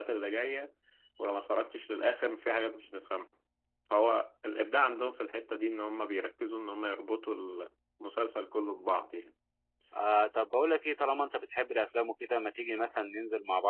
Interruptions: none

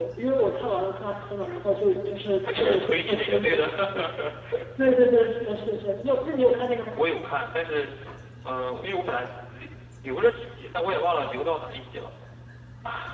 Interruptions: present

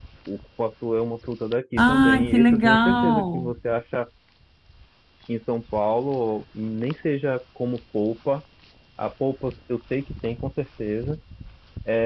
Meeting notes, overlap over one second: present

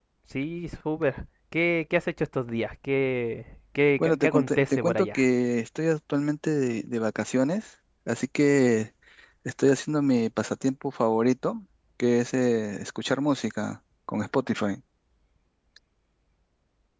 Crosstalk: present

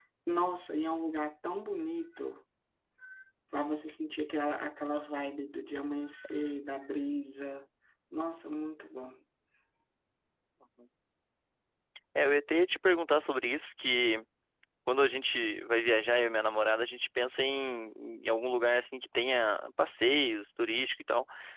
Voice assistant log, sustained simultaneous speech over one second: none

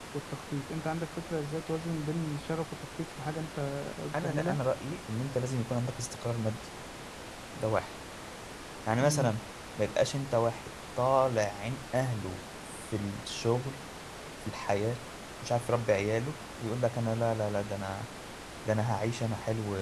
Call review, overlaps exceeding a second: none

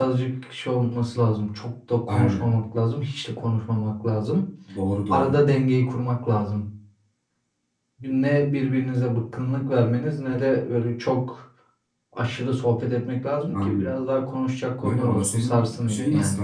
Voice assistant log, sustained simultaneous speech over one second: present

